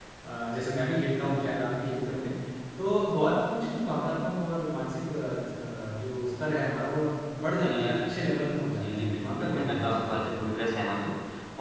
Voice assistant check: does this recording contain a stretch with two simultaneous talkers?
Yes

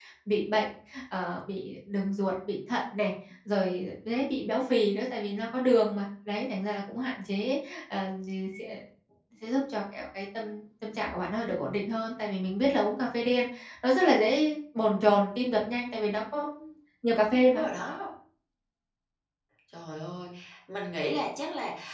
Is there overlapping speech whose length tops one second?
No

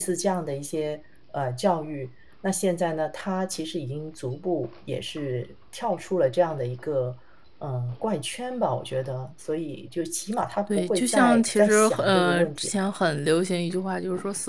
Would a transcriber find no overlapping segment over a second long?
No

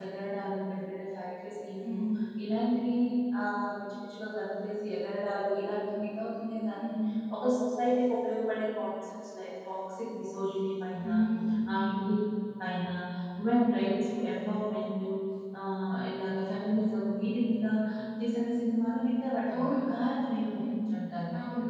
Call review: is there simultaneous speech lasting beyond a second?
No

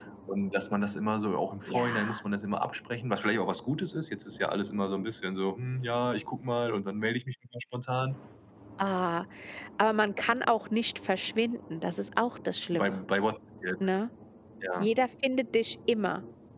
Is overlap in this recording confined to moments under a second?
Yes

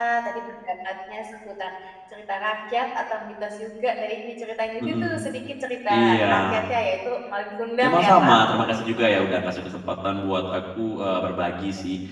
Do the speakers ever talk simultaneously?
Yes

